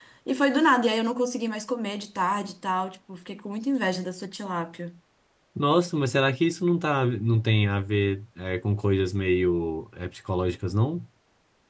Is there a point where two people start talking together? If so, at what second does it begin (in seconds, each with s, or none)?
none